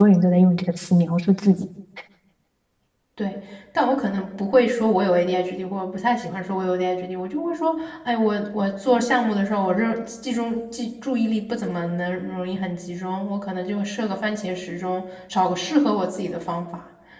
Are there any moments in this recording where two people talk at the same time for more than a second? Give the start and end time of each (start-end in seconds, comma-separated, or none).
none